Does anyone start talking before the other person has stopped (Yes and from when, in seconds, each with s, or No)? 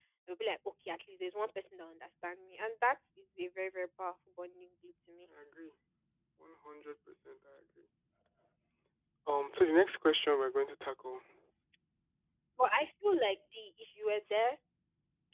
No